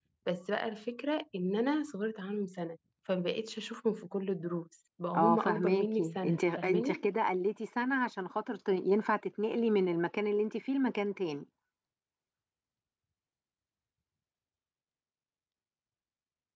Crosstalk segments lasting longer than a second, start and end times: 5.2-7.0

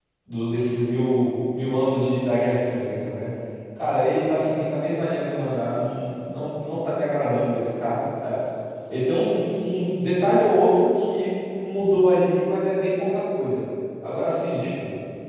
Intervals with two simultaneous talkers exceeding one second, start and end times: none

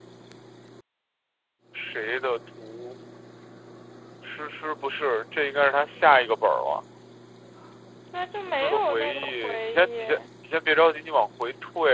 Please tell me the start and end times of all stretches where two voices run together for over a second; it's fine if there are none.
8.6-10.0

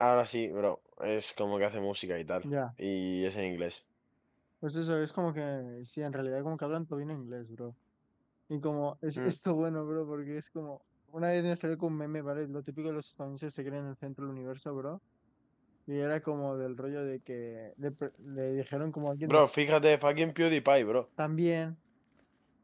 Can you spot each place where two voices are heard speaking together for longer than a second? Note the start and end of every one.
none

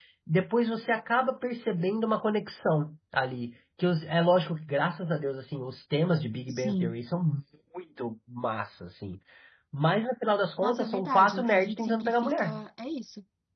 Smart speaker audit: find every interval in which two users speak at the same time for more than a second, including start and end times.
10.6-12.6

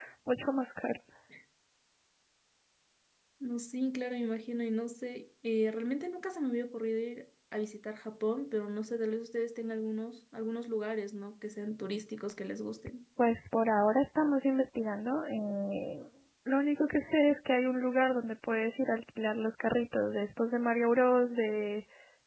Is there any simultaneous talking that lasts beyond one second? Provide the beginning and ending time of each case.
none

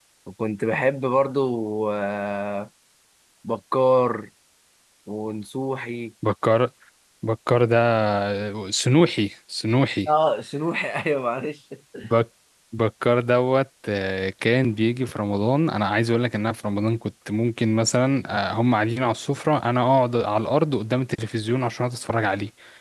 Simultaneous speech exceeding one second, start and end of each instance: none

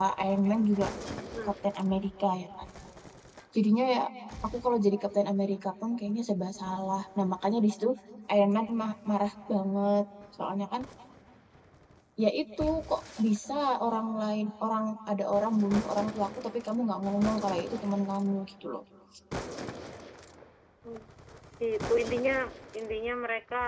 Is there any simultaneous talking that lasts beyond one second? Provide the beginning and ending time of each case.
none

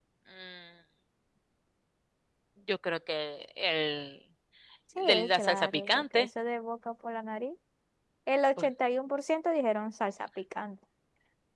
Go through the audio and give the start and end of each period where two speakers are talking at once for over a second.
5.0-6.3

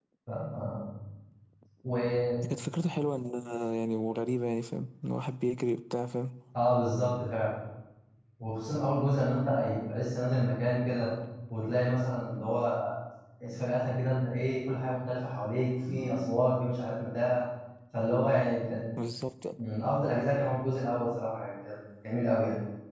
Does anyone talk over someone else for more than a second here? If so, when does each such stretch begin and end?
none

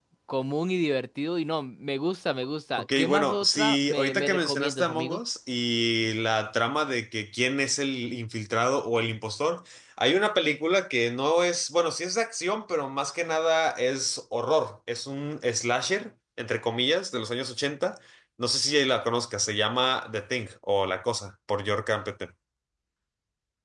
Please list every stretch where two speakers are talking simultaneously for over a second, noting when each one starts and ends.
2.8-5.2

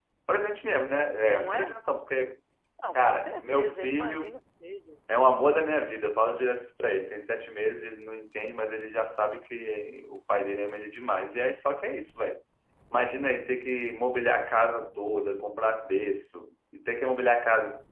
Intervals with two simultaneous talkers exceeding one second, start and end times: 3.0-4.4

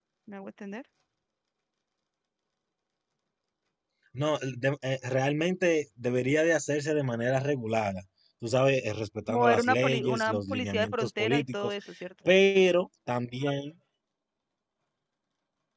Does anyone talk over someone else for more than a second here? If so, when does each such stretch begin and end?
9.3-11.7

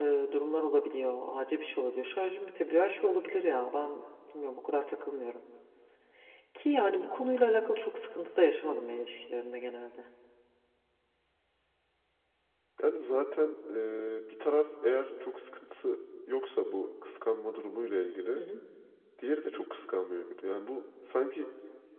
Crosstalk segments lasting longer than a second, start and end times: none

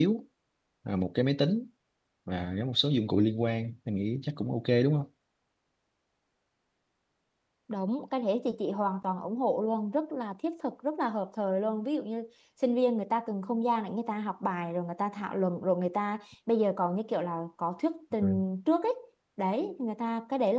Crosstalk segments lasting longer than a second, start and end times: none

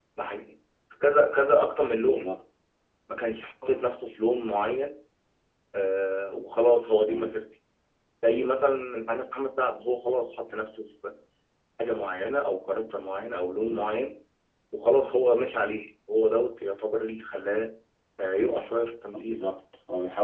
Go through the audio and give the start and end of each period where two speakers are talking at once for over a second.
none

